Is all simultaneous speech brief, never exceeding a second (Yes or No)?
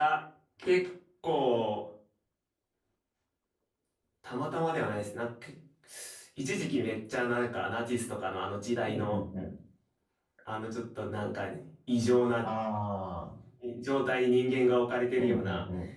Yes